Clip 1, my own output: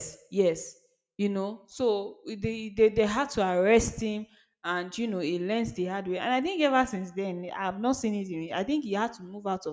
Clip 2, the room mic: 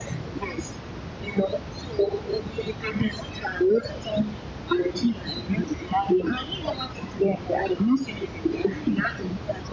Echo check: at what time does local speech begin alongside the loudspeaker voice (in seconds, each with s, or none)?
none